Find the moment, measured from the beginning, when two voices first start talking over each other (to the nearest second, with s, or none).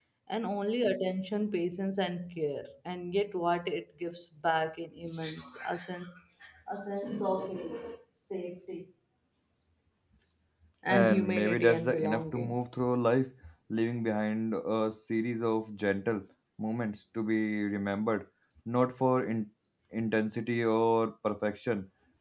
11 s